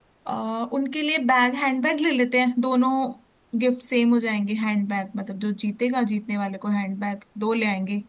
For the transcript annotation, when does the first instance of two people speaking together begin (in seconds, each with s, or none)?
none